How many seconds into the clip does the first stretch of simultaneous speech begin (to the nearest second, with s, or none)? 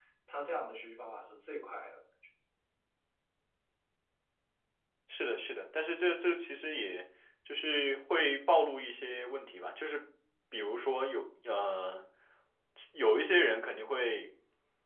none